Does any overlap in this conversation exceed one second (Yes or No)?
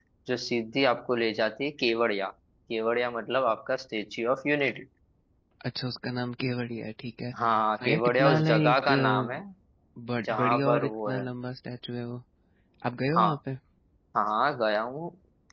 Yes